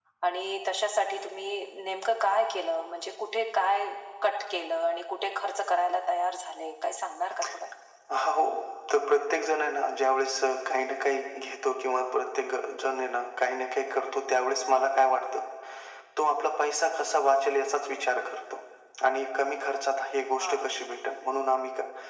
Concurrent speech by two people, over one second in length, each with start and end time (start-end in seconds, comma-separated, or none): none